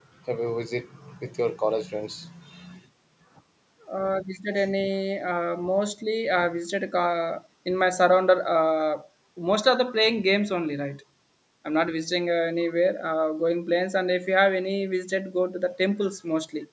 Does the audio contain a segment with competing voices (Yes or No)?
No